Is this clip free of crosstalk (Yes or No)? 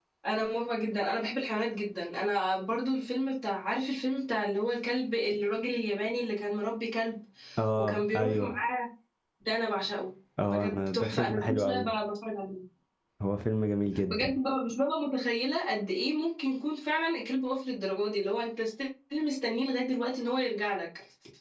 No